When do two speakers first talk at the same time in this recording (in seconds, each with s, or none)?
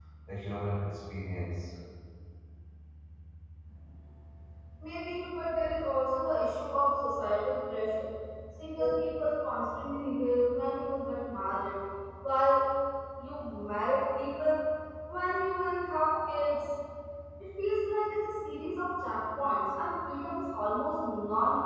none